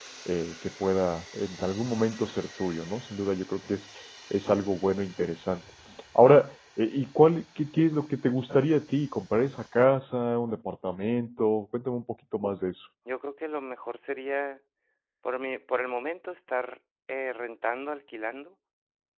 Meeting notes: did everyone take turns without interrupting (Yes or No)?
Yes